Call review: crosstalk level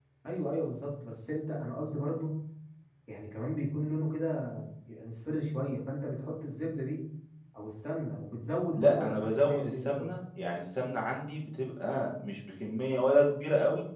present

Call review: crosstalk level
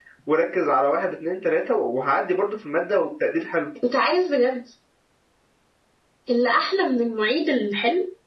none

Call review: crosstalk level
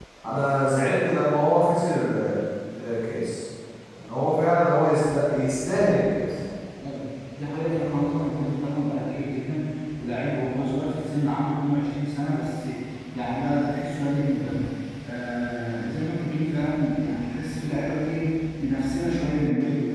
none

